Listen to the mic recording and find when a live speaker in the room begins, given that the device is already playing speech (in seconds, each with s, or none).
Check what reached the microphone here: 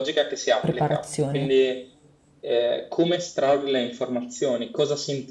0.6 s